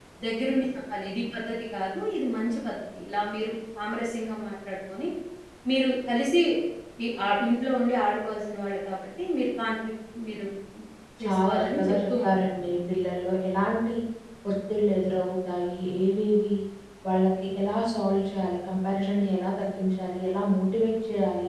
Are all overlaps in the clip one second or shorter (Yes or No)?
No